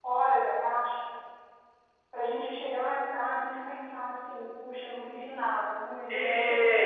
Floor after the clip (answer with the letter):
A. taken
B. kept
A